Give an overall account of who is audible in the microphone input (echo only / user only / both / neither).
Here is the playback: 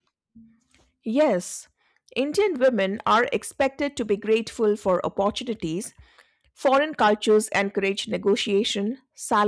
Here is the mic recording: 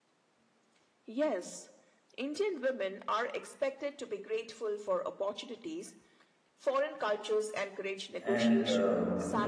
both